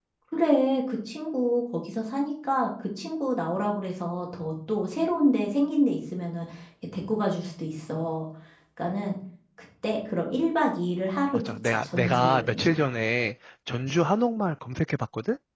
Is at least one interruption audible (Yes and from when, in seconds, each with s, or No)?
Yes, from 11.3 s